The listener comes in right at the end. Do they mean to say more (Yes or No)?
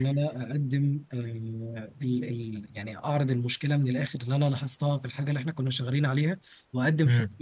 No